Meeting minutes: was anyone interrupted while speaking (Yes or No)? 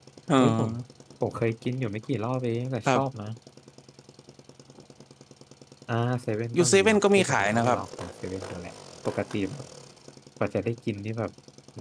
Yes